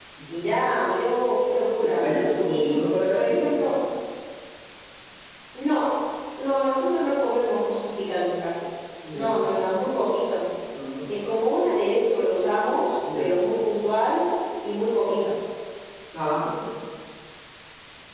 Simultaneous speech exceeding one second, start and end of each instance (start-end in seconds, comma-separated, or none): 2.5-3.7